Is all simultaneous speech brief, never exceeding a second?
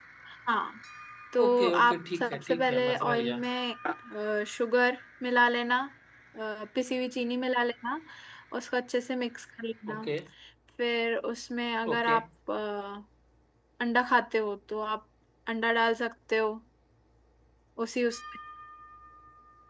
No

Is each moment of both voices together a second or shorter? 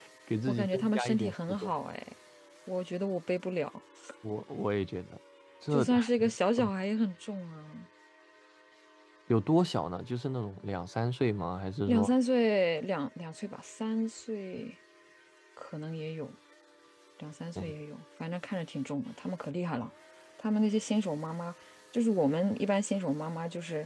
No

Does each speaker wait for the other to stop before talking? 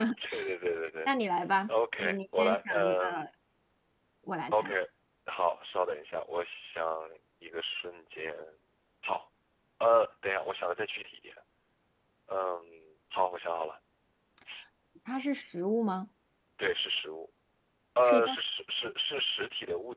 No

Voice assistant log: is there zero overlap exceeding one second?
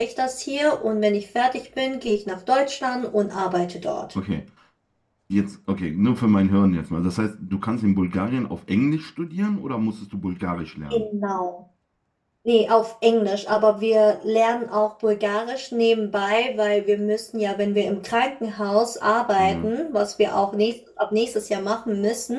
Yes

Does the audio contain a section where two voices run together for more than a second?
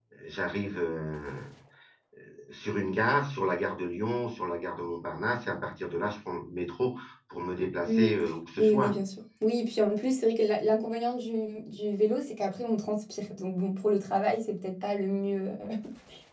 No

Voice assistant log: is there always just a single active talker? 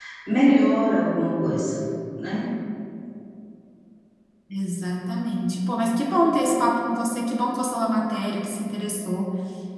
Yes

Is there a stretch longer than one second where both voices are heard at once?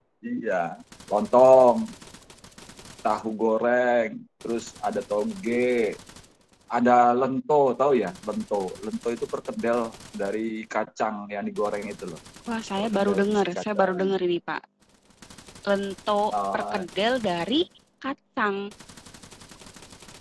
Yes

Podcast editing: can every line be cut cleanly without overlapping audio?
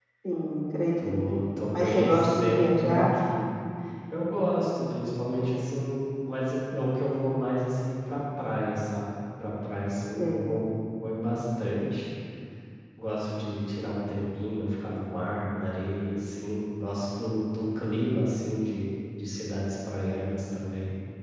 No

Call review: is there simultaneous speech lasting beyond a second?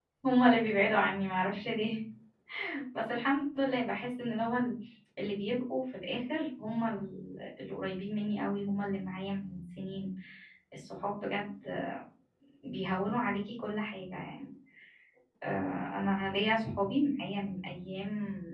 No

